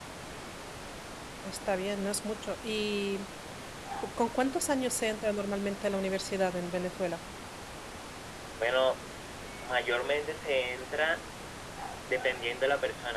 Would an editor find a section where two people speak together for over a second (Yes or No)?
No